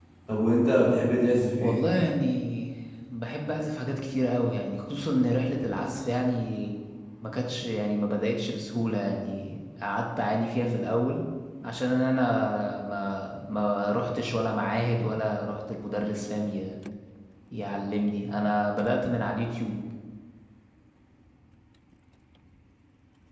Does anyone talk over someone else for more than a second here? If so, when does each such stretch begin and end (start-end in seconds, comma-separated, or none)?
none